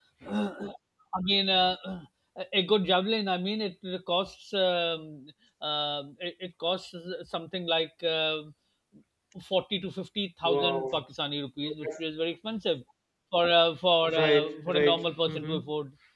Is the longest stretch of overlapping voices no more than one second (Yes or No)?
No